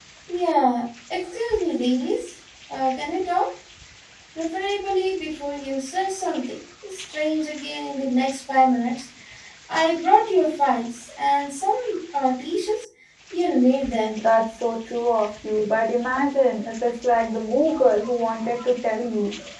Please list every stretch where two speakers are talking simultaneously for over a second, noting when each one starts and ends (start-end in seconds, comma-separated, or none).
none